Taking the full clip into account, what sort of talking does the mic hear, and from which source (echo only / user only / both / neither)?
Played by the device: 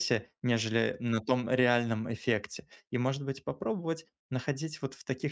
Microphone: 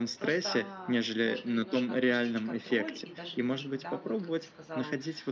both